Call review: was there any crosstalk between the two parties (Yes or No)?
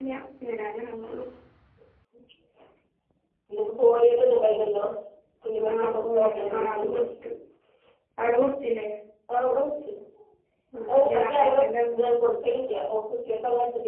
Yes